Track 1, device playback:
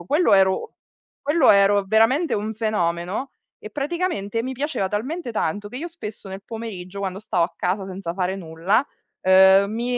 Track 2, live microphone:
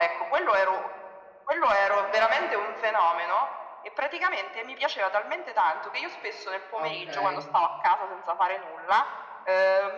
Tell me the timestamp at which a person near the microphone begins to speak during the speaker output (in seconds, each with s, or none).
6.8 s